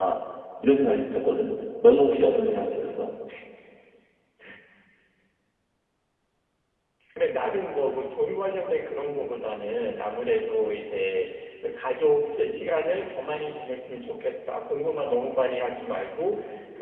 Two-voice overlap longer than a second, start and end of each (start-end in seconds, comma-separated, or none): none